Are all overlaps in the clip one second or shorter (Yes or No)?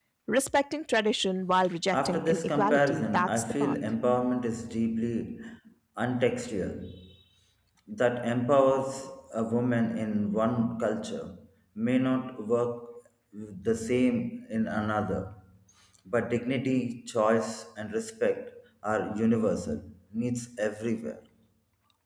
No